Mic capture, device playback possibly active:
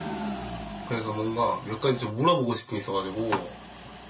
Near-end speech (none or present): none